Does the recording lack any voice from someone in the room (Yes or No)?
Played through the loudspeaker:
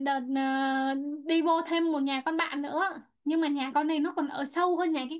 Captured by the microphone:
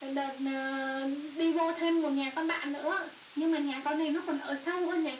Yes